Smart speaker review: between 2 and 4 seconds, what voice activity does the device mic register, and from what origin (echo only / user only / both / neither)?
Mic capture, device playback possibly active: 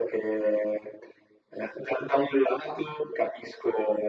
echo only